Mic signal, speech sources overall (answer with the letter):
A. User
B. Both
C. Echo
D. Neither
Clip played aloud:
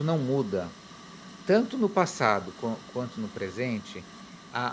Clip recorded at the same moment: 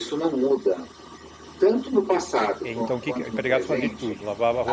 B